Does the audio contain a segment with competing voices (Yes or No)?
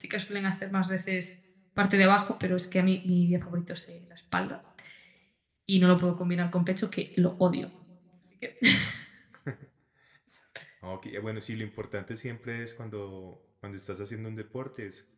No